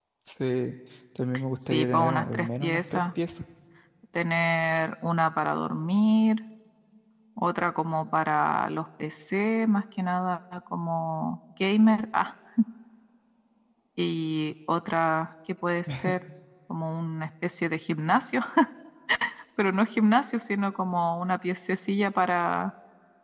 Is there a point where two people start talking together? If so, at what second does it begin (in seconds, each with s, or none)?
1.7 s